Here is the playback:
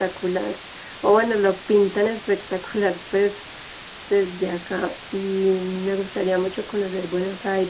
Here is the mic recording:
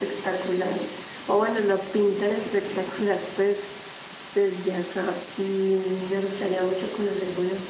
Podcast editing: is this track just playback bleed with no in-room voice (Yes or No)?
Yes